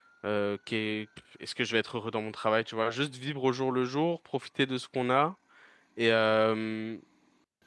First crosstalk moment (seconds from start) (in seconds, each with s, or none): none